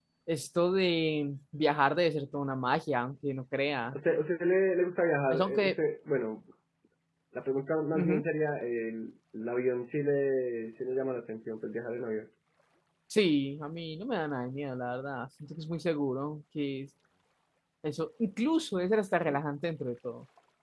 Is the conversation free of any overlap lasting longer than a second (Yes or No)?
Yes